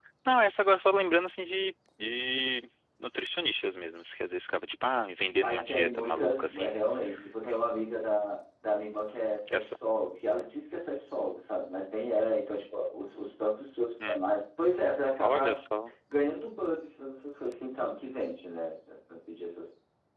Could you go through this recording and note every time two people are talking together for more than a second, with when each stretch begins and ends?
5.4-6.8

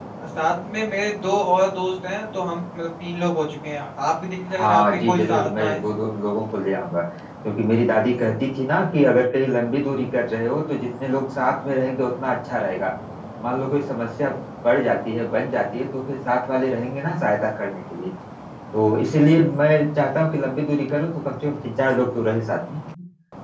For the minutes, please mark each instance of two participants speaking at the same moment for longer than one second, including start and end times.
4.6-5.8

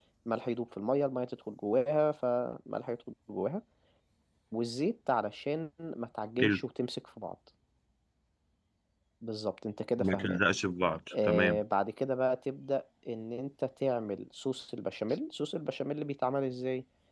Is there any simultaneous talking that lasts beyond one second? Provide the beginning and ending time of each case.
none

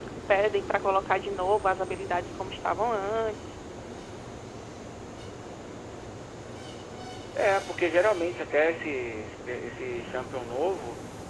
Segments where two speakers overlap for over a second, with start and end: none

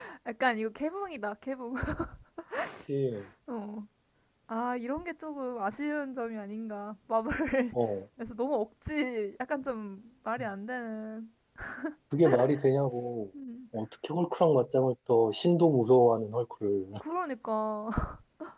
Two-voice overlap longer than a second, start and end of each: none

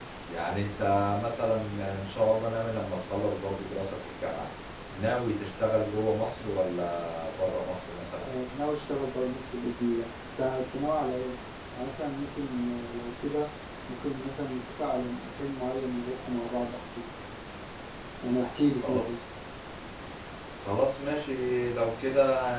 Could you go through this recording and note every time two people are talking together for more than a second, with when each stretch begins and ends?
none

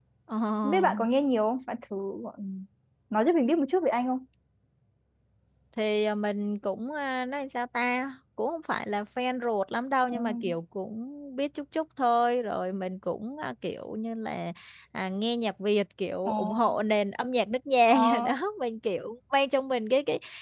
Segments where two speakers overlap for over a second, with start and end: none

